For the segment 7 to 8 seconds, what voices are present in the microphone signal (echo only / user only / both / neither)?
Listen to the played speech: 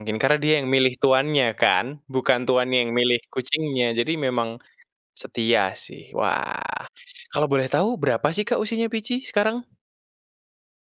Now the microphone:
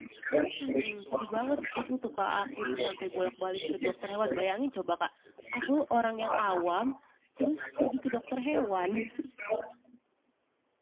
both